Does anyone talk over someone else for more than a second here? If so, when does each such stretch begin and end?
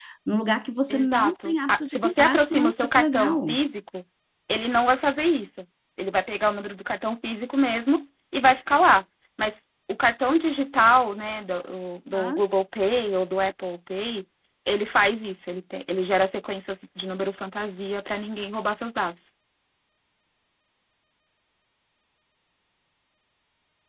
0.9-3.5

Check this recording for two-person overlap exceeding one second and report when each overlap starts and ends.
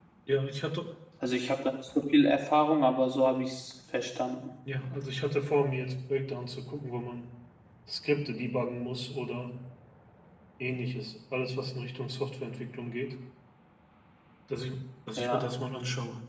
none

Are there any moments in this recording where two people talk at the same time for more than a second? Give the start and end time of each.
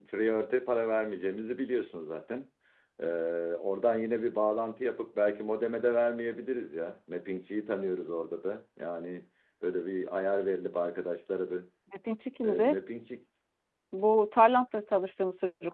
none

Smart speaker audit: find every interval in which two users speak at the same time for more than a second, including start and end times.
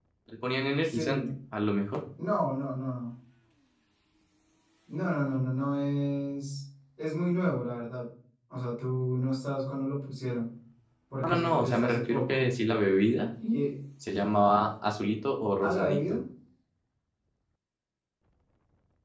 11.2-12.5

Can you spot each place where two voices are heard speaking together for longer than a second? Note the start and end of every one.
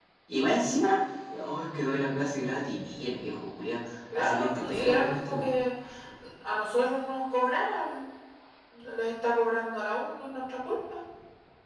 4.2-5.5

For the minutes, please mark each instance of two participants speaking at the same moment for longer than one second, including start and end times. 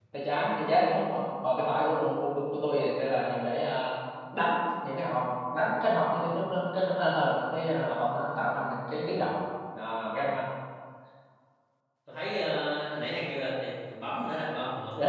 none

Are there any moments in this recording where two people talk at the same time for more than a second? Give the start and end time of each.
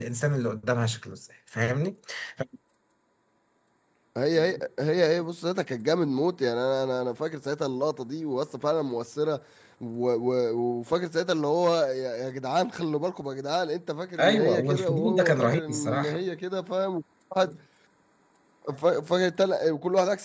14.2-16.2

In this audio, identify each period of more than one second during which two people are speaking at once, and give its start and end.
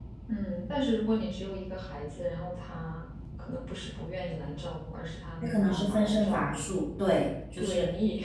5.4-6.6

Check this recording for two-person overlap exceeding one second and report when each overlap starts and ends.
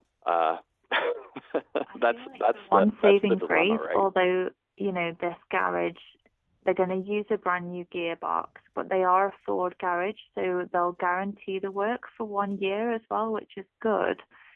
1.9-4.1

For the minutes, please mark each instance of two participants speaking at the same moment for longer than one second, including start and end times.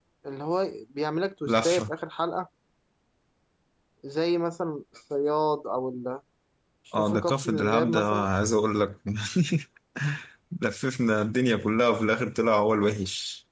7.0-8.3

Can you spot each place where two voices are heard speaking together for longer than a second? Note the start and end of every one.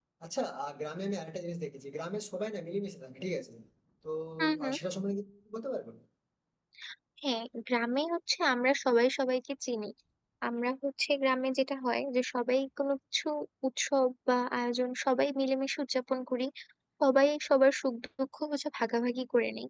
none

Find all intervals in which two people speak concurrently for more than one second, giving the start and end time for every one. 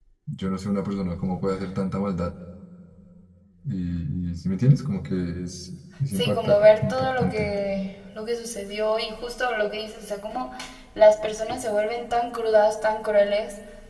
6.1-7.5

